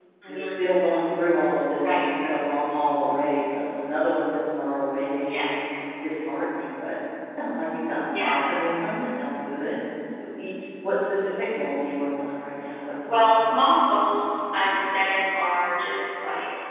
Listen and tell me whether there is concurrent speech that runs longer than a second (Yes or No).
Yes